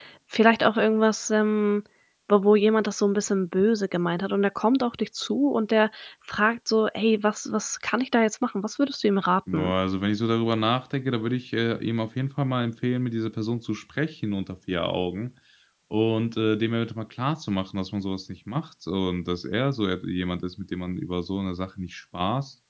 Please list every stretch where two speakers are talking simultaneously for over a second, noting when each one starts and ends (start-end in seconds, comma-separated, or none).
none